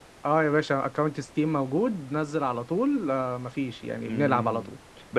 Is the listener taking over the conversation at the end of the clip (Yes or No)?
Yes